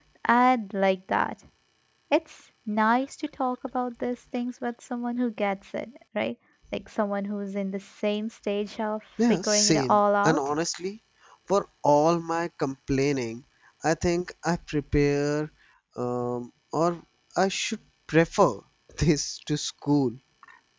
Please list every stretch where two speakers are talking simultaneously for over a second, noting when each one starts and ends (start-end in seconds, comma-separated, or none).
9.3-10.5